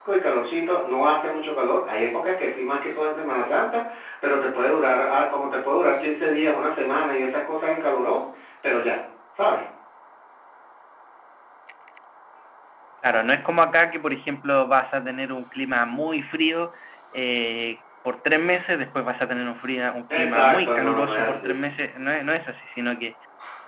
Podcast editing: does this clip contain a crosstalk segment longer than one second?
Yes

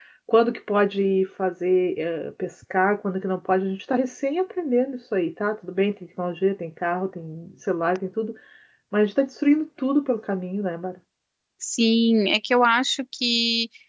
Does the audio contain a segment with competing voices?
No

